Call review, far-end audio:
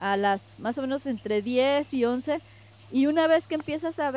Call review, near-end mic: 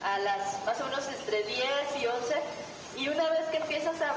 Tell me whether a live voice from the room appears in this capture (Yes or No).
No